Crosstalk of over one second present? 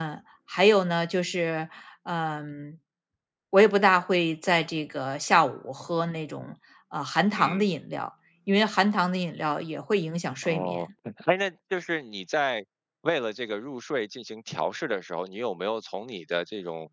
No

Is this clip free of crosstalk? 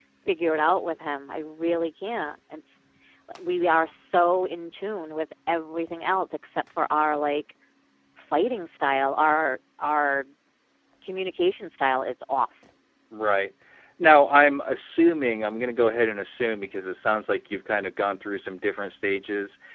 Yes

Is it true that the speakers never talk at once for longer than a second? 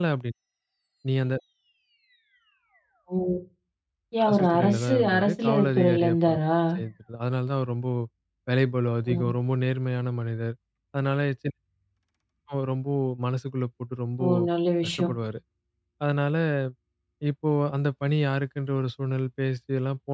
No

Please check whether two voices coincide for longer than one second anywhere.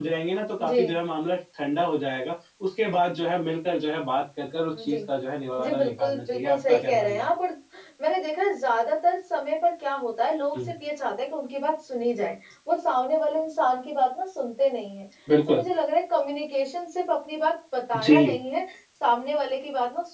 Yes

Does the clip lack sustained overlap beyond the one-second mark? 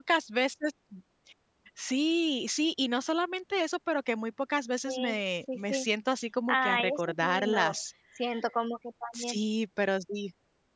No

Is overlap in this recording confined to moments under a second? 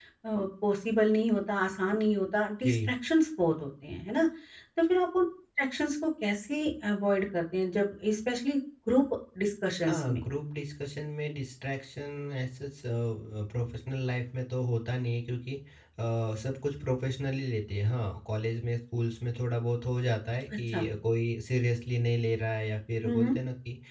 Yes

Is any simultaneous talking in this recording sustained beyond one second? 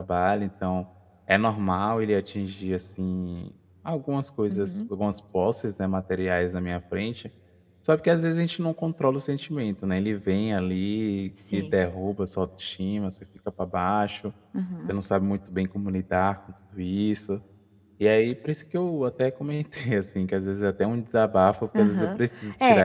No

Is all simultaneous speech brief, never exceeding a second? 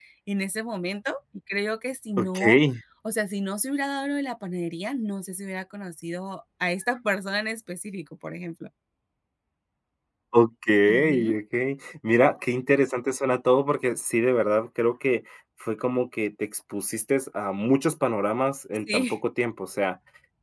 Yes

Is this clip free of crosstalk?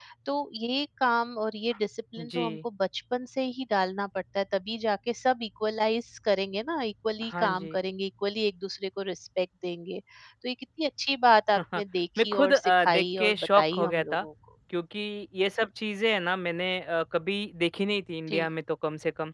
No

